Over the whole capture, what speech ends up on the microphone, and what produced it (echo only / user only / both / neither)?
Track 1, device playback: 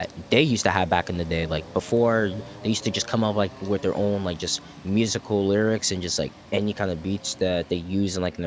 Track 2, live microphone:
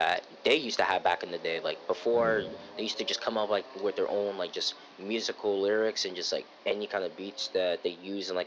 both